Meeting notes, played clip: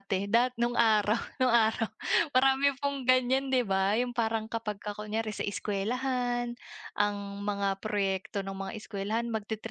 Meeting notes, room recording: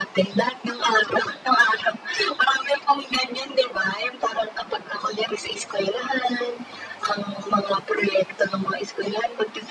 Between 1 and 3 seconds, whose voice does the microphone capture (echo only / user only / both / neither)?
echo only